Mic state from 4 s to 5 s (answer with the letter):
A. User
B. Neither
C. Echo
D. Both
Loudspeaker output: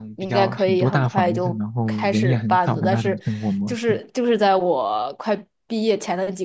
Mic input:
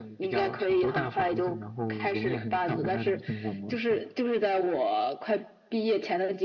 C